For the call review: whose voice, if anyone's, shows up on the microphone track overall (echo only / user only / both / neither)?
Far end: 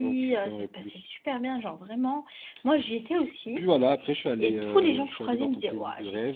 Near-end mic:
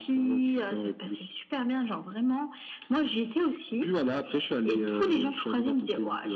echo only